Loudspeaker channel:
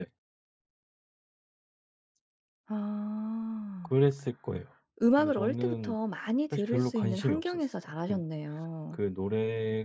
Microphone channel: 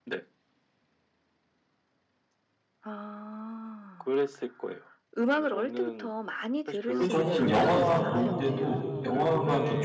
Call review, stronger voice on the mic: user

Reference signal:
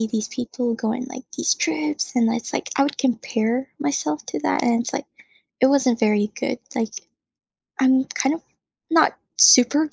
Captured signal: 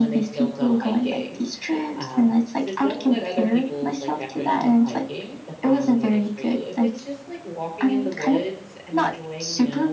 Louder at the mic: echo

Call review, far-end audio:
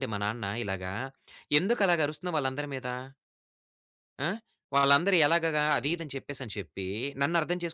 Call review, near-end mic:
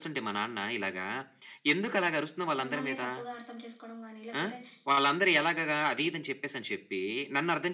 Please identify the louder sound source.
echo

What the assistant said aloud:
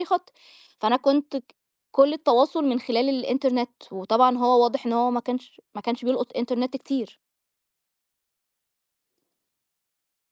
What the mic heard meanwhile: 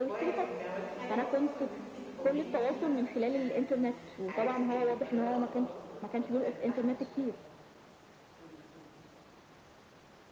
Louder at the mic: echo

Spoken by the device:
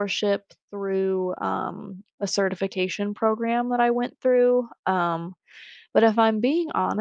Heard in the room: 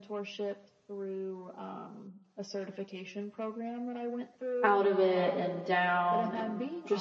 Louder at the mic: user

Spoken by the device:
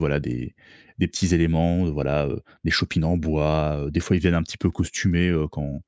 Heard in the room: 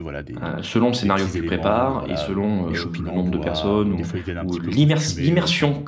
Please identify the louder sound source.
user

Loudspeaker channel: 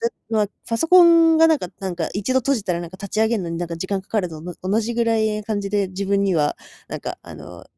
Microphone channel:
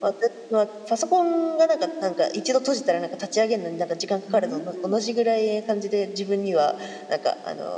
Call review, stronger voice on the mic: echo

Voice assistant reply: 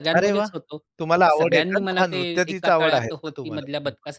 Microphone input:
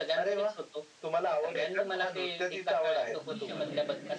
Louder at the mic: echo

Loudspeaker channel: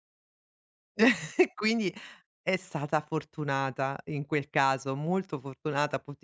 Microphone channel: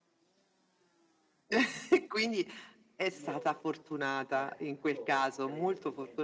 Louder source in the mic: echo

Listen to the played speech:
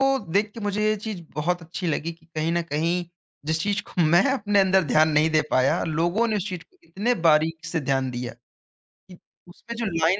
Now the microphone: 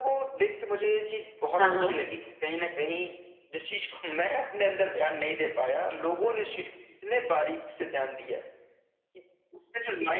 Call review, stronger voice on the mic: user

